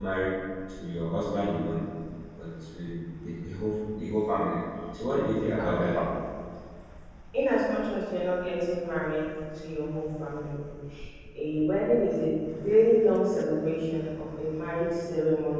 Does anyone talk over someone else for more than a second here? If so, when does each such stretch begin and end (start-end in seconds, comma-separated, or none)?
none